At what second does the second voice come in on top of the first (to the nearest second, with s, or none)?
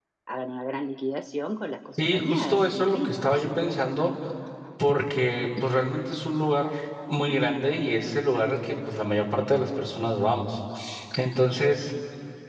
2 s